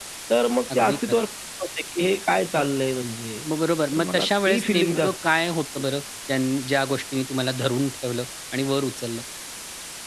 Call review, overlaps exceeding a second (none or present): present